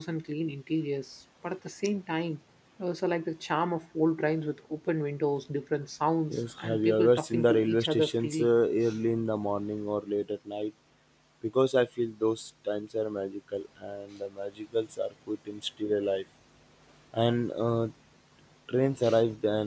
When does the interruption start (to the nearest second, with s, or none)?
6 s